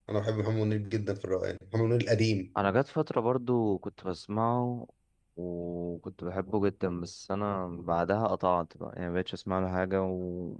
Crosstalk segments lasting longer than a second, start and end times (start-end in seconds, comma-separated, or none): none